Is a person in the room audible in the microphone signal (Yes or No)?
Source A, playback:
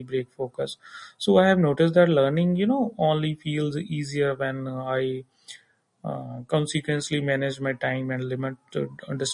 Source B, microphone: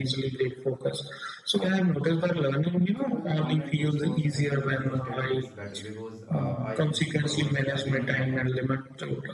Yes